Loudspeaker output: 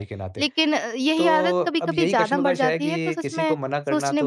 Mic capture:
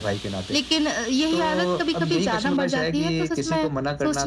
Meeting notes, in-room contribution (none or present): none